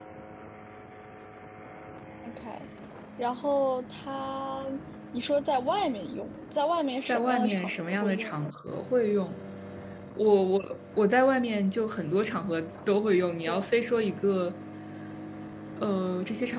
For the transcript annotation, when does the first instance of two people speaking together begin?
7.1 s

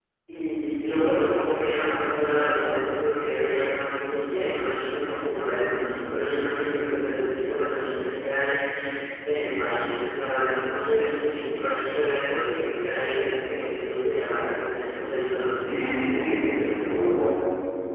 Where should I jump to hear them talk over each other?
none

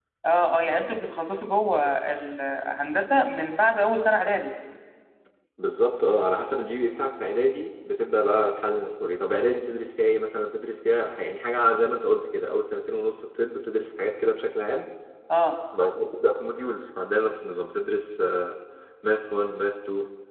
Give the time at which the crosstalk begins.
none

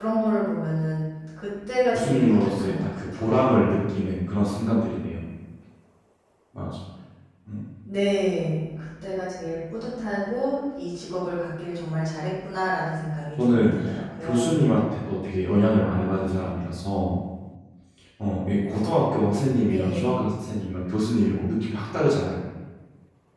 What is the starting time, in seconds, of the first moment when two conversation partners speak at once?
1.9 s

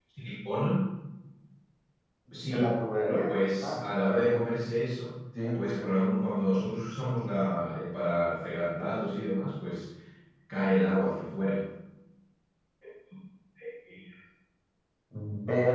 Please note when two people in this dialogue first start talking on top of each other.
2.4 s

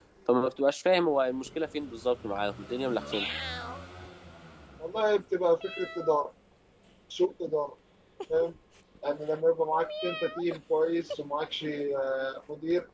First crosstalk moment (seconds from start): none

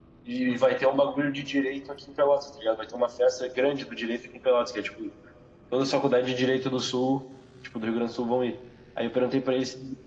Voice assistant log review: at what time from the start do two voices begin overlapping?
none

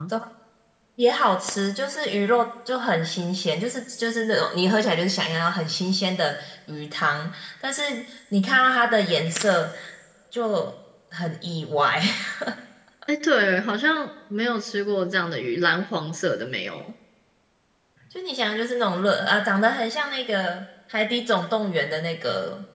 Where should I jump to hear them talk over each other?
none

